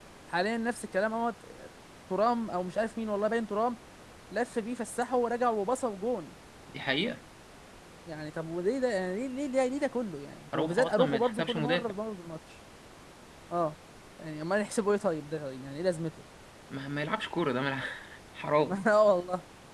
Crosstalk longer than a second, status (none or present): present